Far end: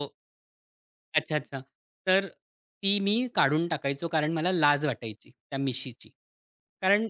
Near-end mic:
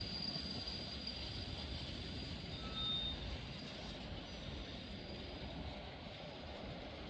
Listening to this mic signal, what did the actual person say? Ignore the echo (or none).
none